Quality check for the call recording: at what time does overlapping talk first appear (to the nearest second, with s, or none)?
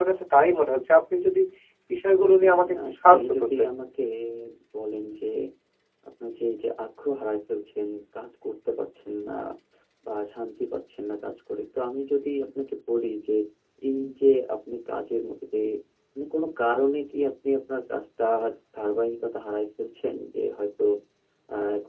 2 s